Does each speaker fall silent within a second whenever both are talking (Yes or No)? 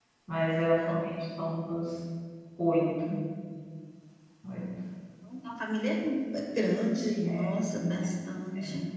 Yes